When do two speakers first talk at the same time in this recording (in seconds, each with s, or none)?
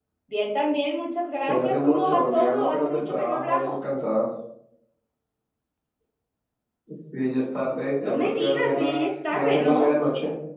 1.4 s